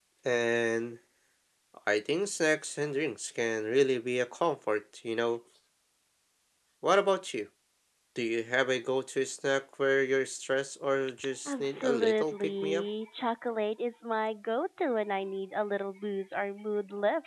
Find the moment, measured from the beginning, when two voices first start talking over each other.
11.4 s

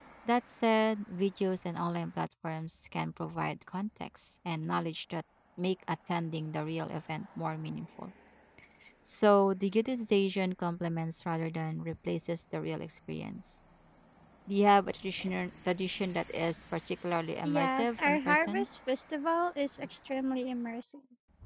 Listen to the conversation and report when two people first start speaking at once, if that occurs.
17.4 s

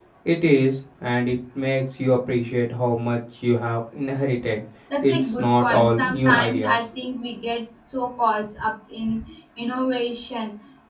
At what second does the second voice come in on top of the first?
5.0 s

